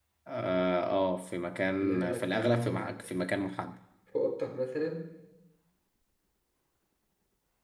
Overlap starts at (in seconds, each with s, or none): 1.8 s